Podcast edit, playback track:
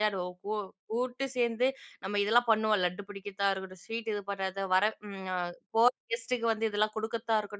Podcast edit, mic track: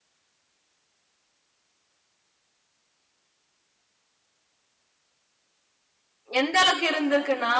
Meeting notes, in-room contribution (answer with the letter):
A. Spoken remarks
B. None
A